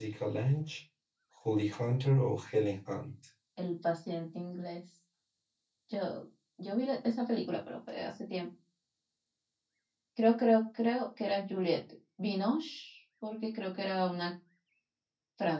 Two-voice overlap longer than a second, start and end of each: none

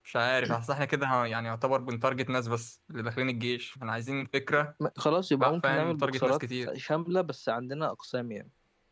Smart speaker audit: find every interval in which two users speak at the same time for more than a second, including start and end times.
5.4-6.7

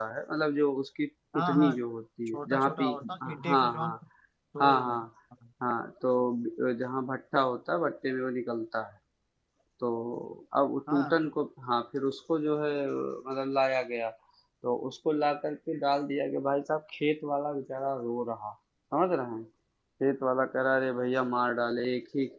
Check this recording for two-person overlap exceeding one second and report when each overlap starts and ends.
2.3-4.0

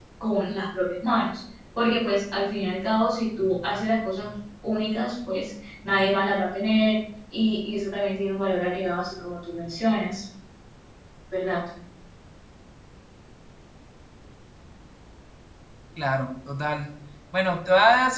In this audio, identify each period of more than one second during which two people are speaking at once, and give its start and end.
none

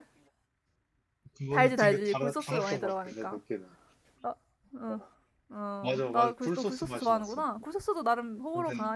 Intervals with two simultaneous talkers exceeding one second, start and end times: 1.5-3.4, 5.8-7.4

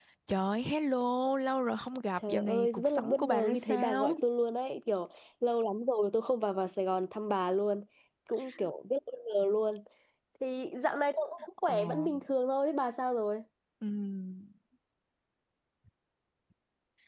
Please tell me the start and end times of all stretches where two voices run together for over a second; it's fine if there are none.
2.3-4.2

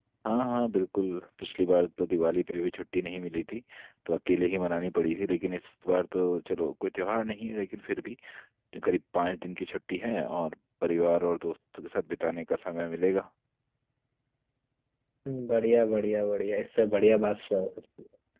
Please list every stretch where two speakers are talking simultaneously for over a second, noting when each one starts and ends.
none

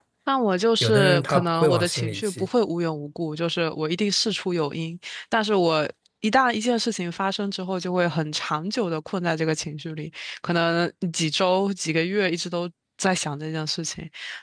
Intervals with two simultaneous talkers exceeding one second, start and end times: 0.8-2.5

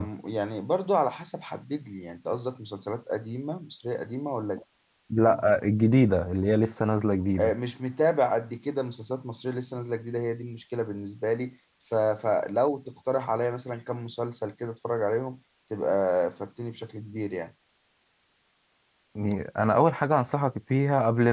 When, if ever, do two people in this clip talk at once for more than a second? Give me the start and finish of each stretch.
none

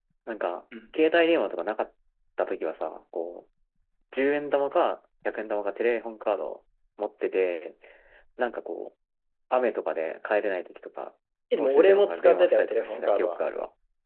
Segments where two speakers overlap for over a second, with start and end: 11.6-13.4

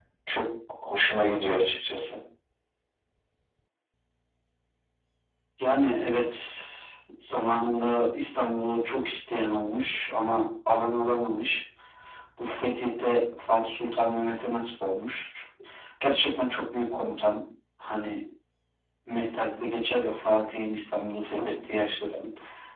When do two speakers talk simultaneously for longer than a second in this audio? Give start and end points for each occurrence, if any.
none

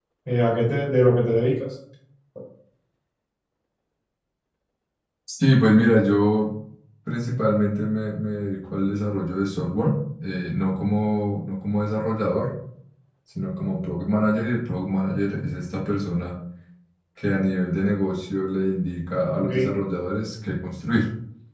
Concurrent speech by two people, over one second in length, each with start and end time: none

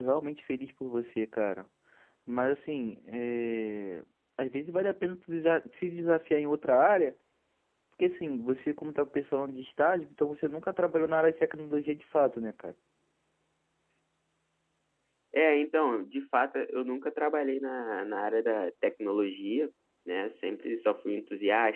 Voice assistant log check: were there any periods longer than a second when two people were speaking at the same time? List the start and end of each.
none

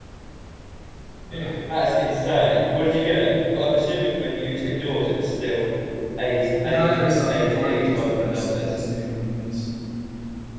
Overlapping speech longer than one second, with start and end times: 6.6-8.7

